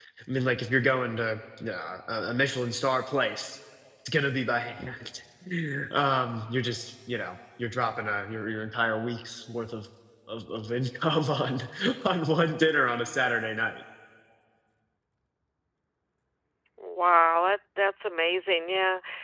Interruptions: none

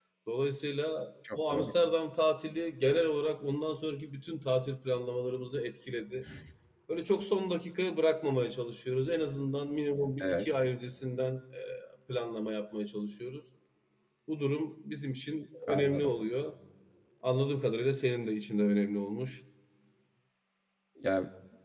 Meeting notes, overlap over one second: none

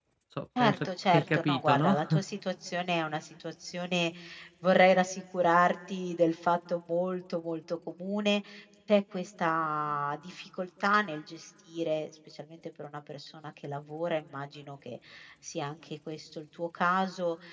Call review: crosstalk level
present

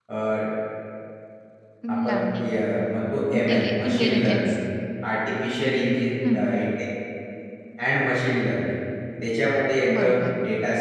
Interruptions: present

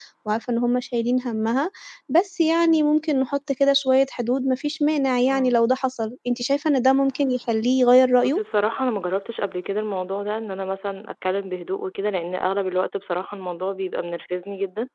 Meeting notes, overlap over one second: none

